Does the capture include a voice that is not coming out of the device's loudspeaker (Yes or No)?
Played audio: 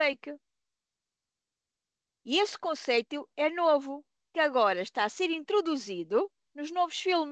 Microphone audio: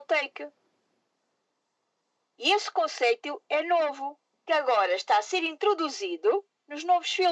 No